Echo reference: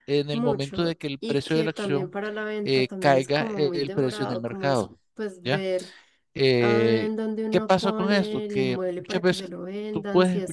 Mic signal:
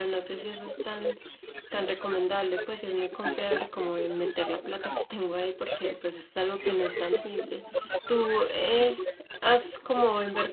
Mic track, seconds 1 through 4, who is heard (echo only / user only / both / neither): both